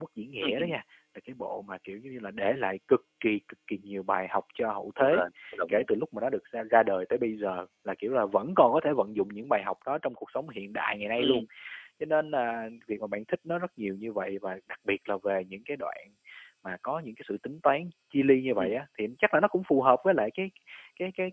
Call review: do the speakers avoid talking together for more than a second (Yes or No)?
Yes